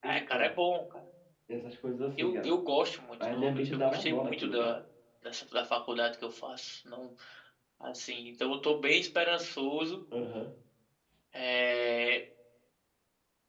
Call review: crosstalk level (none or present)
present